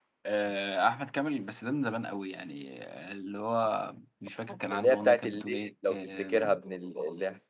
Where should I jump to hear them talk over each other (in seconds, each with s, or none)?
4.5 s